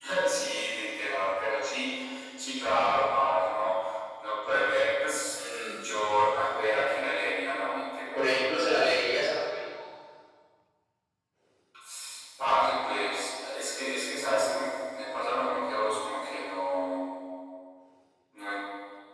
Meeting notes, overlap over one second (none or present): none